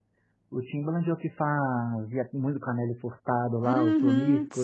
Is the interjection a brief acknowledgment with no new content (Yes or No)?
No